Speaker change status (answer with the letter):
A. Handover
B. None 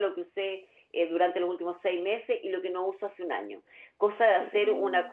B